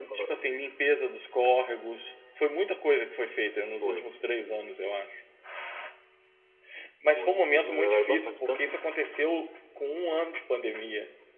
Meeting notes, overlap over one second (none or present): present